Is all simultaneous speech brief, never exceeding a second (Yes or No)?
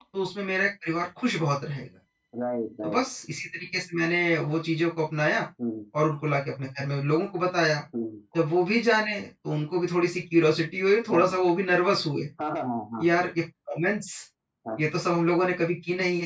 Yes